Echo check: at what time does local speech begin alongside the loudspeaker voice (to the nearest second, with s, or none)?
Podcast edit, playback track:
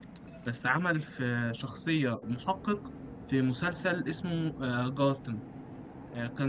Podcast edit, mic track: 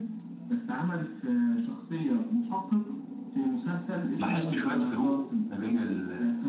4 s